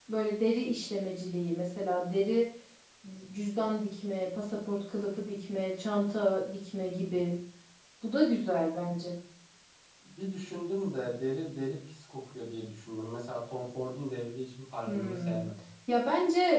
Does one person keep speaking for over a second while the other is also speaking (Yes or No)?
No